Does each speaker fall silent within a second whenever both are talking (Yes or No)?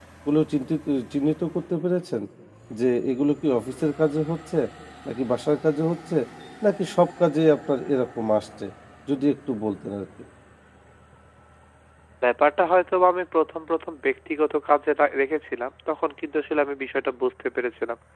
Yes